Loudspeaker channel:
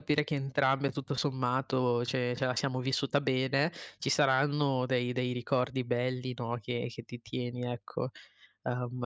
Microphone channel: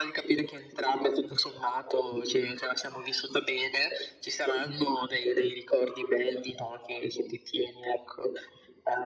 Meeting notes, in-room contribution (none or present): none